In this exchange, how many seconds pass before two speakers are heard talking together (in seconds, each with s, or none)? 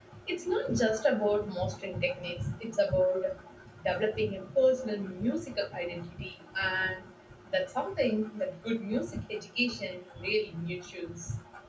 none